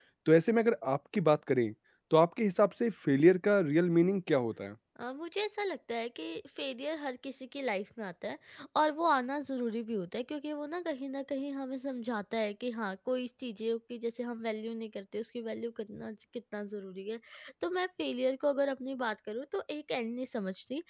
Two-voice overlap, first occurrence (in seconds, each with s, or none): none